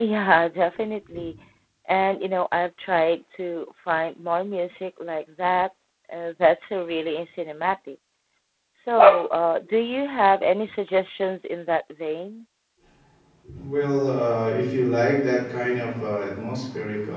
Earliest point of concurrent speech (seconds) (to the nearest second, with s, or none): none